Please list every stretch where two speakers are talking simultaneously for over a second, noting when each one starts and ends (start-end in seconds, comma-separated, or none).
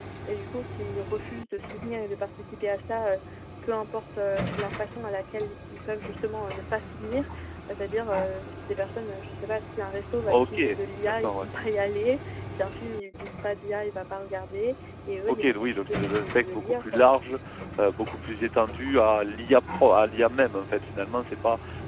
15.3-17.0